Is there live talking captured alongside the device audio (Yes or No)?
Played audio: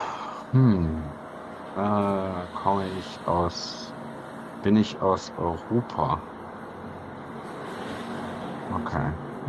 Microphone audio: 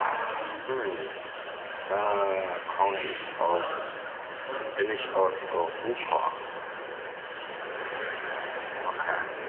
Yes